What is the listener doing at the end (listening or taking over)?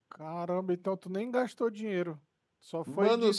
taking over